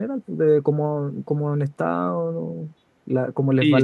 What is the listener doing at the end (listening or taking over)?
taking over